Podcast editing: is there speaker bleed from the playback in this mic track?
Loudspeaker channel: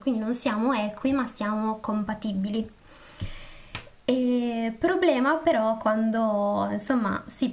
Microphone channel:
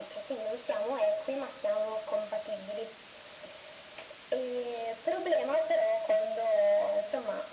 Yes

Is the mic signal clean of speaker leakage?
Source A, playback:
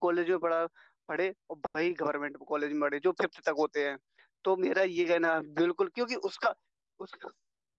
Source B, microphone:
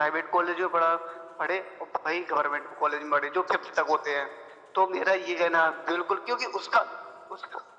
No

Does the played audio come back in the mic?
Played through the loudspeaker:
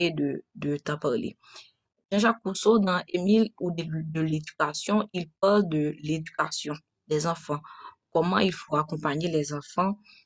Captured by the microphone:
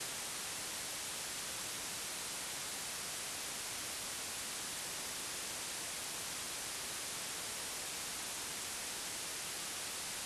No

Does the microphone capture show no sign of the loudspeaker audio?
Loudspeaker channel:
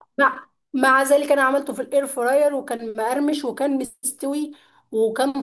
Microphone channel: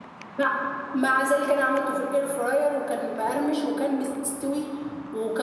No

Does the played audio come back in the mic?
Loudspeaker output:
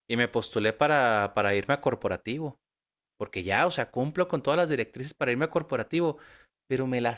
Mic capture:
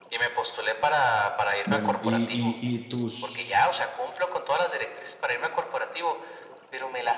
Yes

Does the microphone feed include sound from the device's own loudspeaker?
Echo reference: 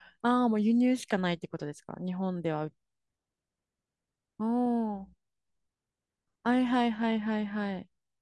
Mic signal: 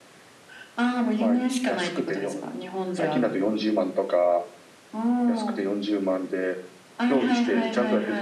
Yes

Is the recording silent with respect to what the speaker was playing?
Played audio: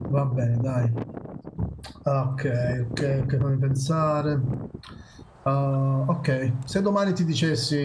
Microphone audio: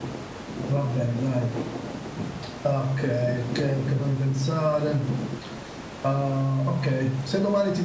No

